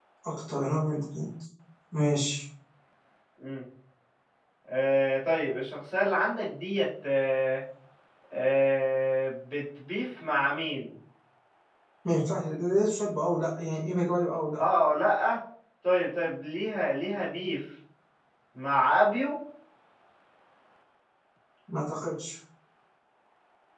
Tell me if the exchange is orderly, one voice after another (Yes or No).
Yes